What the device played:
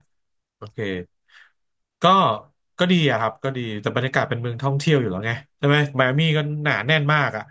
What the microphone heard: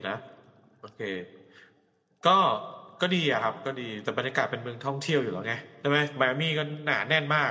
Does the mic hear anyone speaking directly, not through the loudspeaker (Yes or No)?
No